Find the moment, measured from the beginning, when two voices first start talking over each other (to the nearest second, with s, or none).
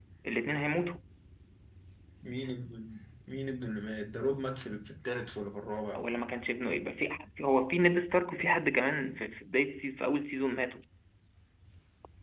none